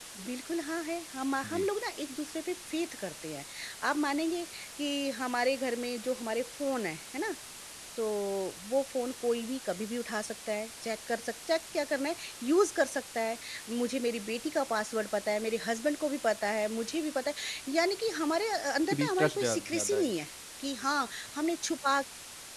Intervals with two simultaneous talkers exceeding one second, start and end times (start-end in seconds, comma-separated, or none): 18.9-20.1